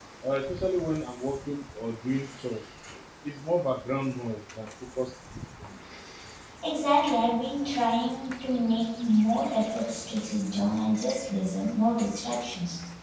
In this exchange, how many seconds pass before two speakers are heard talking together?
none

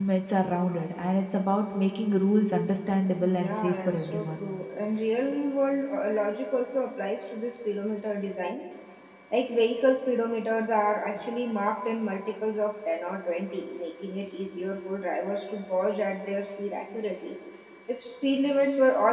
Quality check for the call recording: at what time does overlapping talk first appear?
3.2 s

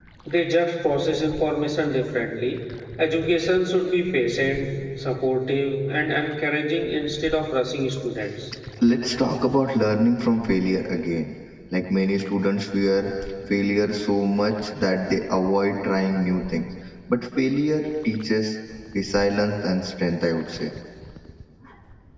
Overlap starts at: none

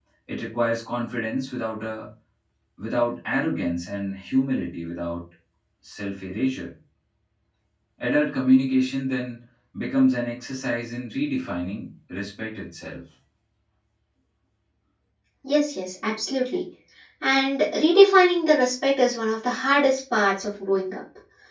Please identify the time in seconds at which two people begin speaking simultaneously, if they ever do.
none

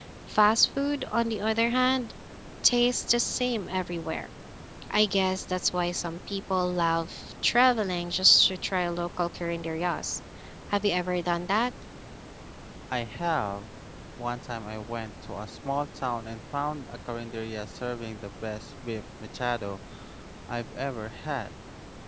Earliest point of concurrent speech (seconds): none

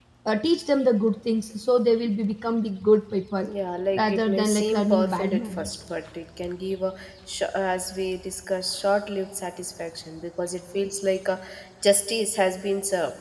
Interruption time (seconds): 4.0 s

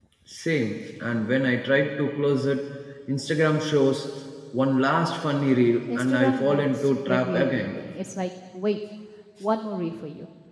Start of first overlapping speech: 5.9 s

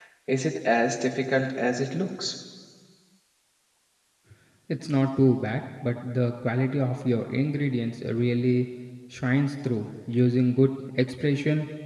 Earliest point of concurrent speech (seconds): none

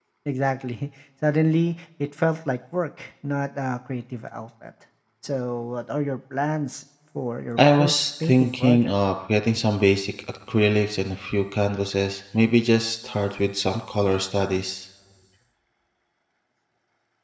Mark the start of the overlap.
7.6 s

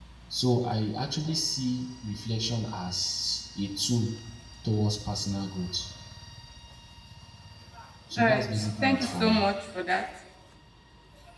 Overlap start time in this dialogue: 8.2 s

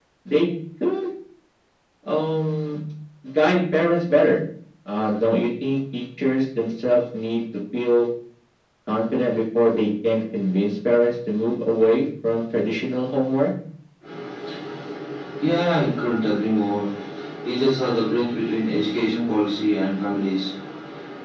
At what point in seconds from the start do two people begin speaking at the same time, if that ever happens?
none

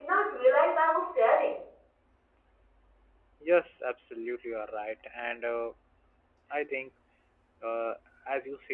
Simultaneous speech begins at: none

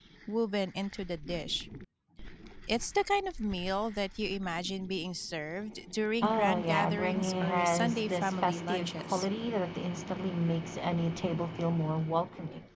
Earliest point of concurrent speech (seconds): 6.2 s

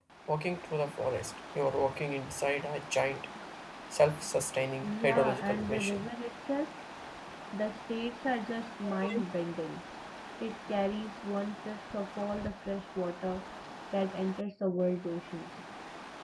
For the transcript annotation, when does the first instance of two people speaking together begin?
4.8 s

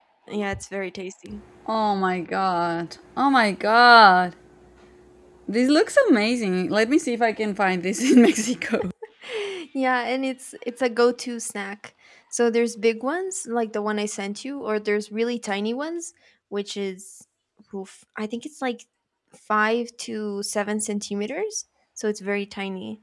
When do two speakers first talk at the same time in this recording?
none

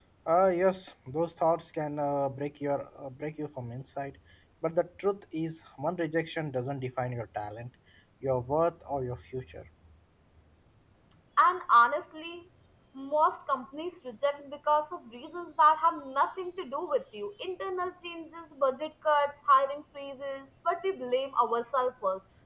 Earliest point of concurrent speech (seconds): none

